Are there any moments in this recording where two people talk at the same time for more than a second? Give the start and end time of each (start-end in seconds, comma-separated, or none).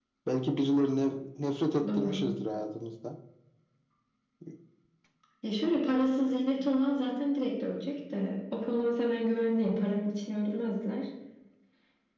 none